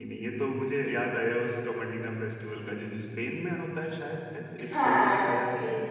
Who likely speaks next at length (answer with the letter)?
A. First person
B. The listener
B